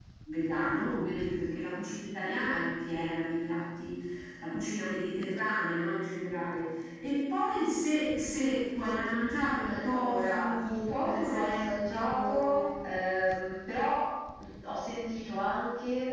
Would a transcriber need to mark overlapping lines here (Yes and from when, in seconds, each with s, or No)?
Yes, from 9.6 s